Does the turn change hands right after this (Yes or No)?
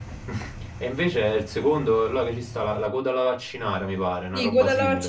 Yes